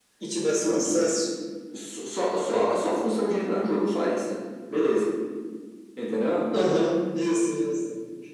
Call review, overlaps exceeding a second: none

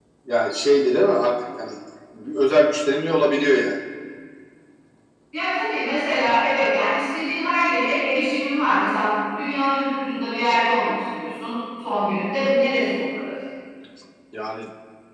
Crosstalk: none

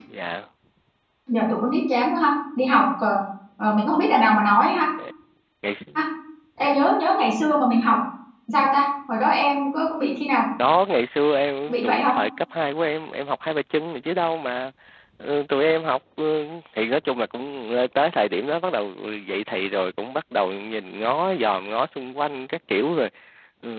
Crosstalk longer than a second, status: none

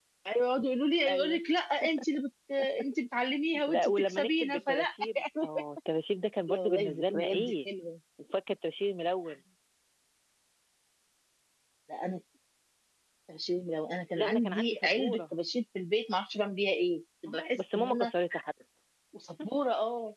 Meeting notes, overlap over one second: present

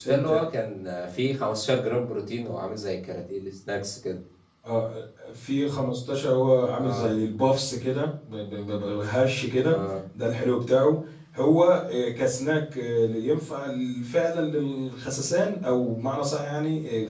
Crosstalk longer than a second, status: none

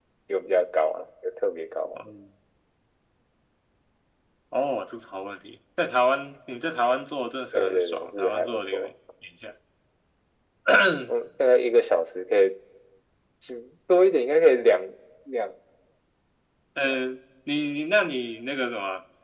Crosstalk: present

